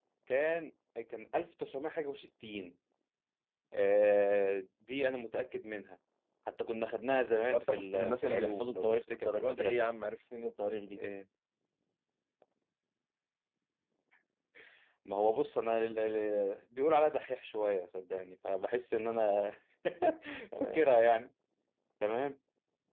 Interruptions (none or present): present